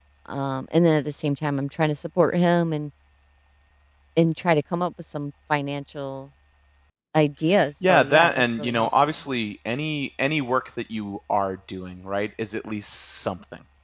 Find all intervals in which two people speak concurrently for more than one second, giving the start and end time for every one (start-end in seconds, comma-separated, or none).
7.8-9.1